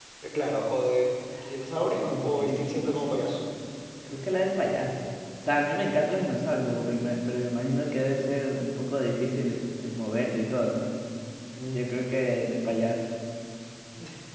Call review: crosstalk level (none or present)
present